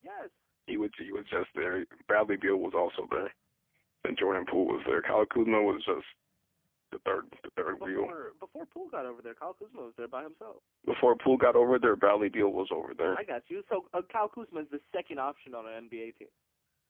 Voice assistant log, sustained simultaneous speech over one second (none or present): none